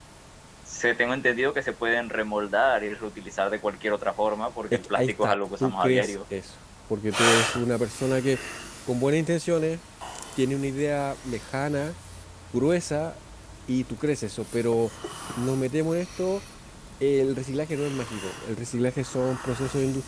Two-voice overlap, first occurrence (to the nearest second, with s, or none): 5 s